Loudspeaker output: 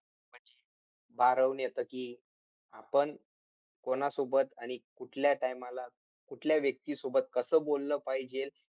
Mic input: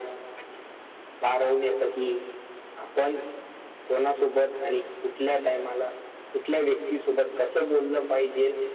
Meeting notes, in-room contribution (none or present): none